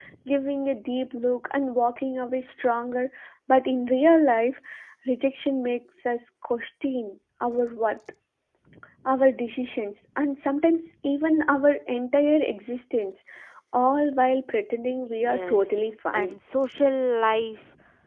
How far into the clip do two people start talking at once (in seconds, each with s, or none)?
15.1 s